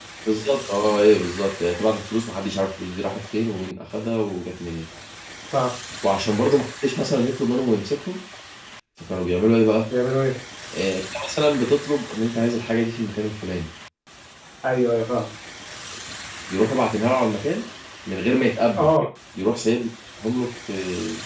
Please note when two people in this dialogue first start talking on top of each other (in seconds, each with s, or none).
none